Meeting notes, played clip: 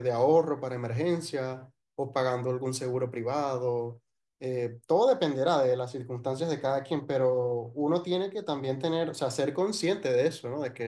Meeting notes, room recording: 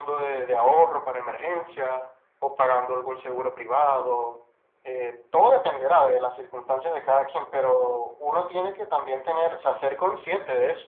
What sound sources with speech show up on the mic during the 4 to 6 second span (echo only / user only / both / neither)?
echo only